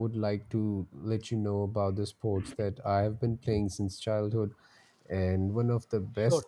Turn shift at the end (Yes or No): No